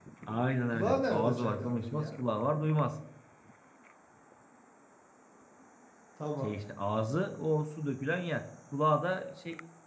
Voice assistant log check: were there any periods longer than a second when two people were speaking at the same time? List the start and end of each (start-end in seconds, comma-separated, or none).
0.7-2.1